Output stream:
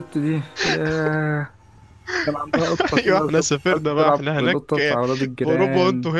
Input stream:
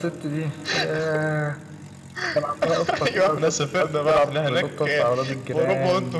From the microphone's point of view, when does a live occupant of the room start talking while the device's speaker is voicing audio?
none

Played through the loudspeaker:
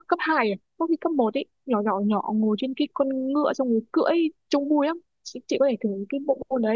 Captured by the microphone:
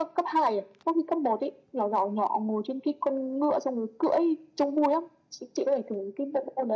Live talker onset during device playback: none

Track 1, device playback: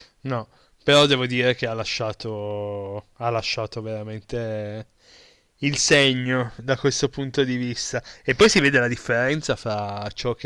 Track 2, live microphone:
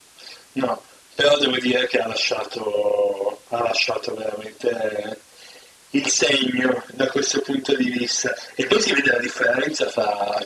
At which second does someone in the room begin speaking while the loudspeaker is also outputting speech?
none

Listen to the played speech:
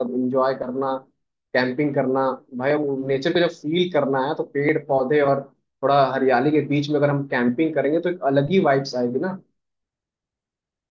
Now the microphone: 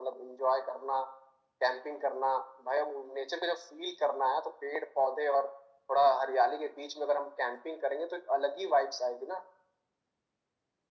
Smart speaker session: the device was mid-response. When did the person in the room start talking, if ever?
none

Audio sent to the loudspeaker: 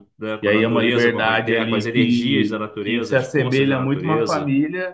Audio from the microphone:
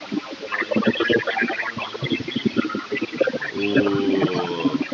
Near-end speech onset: 3 s

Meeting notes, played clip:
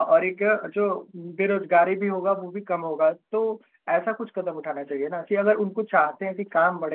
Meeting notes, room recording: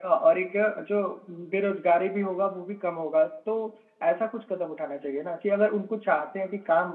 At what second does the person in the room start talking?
none

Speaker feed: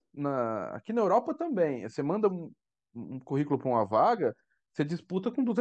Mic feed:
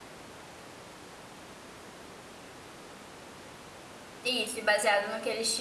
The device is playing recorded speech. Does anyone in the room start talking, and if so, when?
4 s

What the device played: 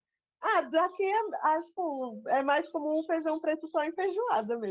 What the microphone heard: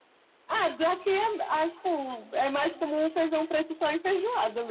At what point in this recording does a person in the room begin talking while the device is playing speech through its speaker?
none

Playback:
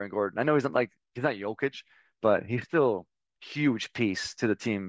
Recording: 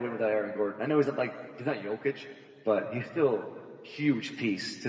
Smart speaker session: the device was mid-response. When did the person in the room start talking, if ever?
none

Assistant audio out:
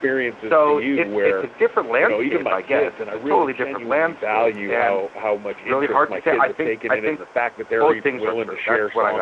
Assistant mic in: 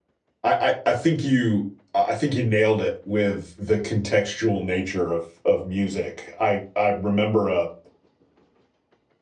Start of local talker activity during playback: 0 s

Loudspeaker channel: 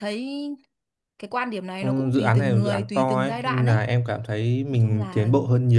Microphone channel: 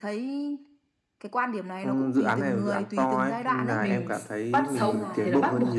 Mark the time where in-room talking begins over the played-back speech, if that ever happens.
4 s

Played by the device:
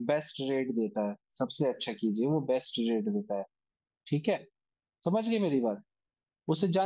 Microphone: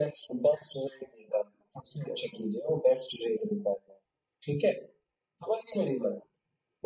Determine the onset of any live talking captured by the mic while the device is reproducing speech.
none

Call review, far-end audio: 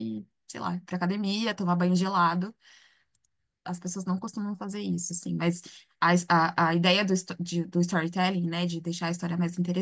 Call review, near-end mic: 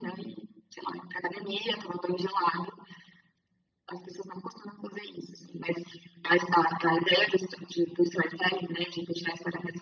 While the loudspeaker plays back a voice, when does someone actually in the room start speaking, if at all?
none

